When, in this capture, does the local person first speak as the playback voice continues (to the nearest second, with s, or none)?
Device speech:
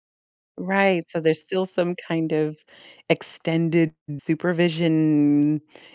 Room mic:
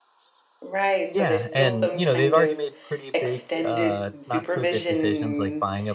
1 s